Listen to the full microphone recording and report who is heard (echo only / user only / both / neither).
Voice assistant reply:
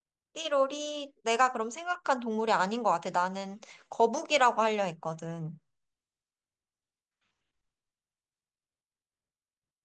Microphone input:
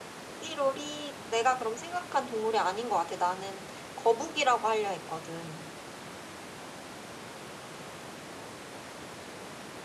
echo only